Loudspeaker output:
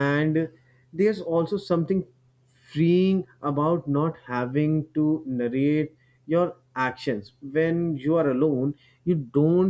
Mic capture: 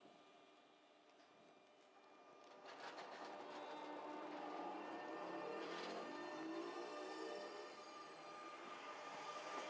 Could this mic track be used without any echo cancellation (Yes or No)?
Yes